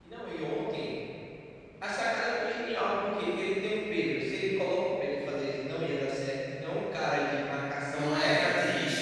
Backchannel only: No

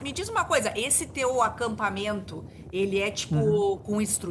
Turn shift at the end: No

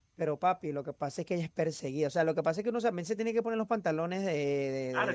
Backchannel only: No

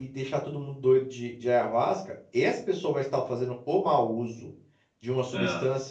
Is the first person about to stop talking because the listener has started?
No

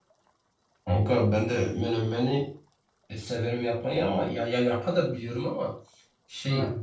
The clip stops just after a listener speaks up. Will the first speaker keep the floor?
Yes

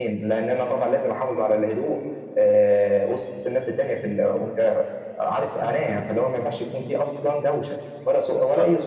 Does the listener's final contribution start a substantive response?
Yes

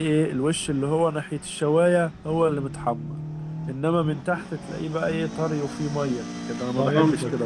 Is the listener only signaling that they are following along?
No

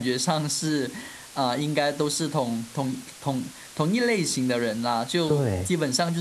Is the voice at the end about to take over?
No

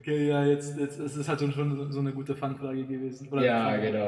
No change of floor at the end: No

